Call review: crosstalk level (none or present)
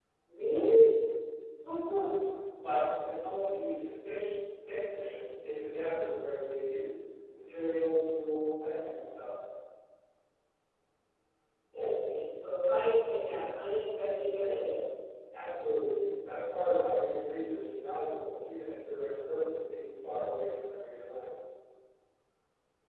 none